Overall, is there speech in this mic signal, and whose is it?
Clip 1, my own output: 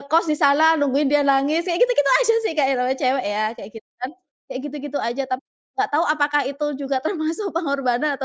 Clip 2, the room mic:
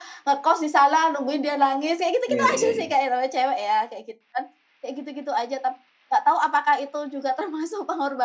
both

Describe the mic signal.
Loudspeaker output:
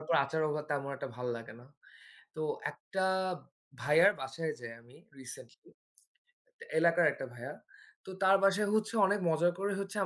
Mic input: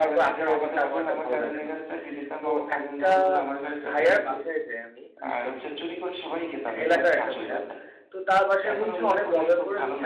both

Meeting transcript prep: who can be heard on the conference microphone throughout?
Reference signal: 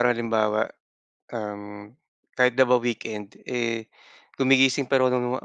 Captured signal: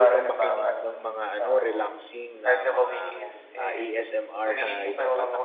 both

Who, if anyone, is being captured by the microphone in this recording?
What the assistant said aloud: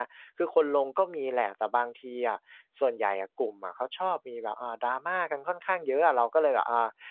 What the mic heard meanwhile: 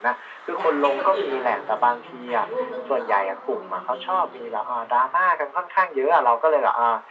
both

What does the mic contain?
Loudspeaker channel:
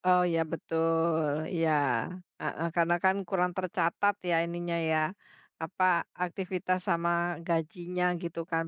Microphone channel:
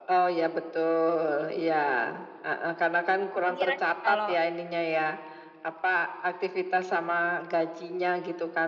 both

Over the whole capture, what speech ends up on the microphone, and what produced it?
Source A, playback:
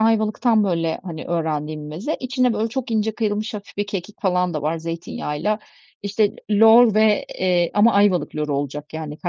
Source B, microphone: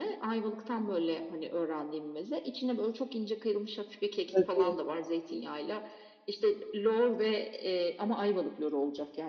both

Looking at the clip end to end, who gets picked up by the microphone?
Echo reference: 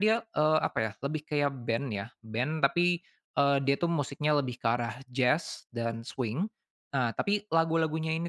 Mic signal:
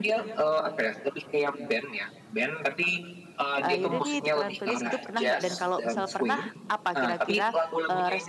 both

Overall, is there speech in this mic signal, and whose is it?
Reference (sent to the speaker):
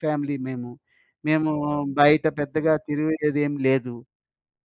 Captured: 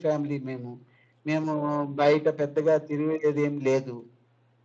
echo only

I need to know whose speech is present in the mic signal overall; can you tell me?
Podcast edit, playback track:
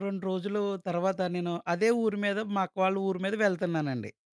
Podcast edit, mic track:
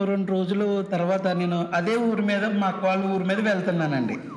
echo only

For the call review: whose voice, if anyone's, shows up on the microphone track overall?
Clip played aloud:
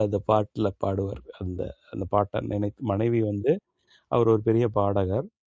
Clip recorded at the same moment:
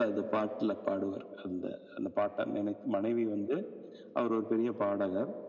echo only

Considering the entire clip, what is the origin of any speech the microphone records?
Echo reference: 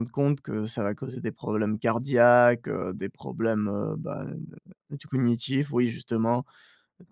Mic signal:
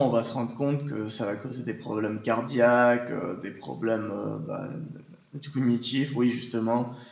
echo only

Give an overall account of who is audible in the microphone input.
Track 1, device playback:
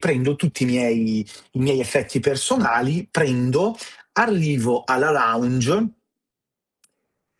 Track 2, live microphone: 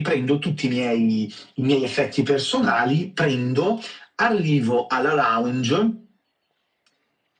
echo only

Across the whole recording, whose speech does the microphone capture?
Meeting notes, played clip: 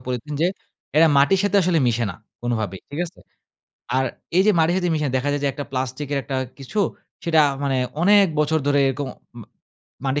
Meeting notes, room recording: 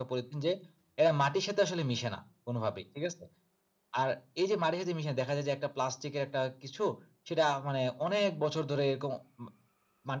echo only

